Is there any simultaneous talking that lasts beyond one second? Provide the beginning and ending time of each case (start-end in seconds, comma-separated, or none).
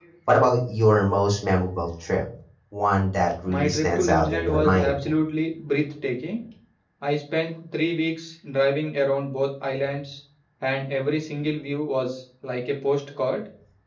3.5-4.9